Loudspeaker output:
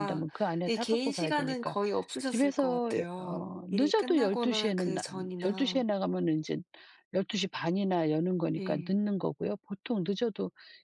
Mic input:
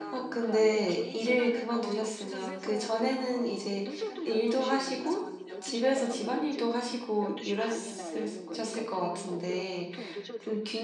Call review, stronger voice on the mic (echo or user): user